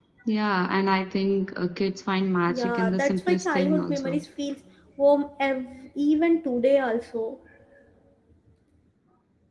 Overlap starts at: 2.5 s

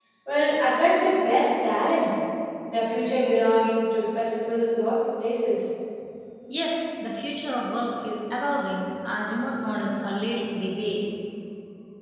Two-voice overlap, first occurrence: none

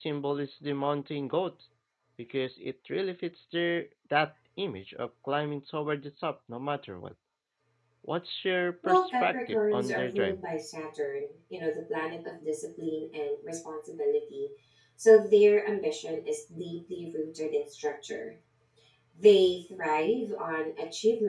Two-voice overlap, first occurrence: 8.8 s

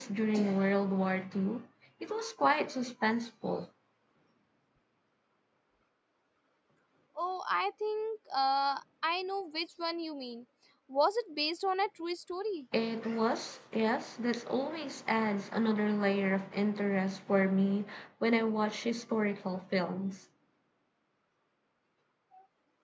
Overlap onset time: none

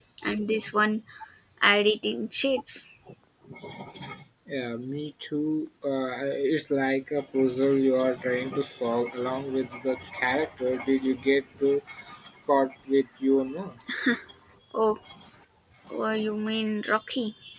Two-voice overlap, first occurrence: none

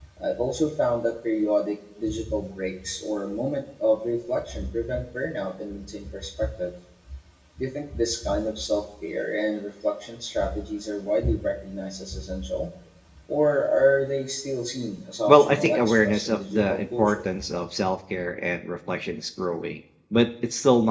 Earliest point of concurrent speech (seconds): 15.3 s

